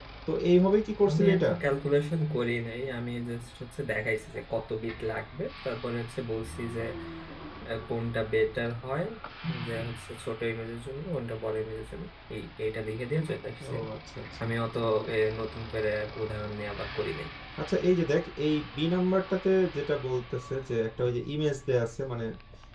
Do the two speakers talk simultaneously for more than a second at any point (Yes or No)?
No